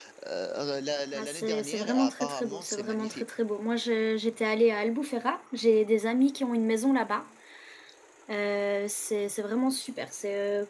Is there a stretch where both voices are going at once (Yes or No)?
Yes